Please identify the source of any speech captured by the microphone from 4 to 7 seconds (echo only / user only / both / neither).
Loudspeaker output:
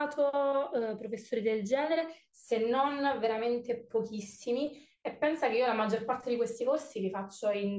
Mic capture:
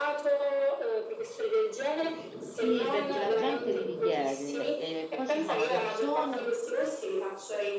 both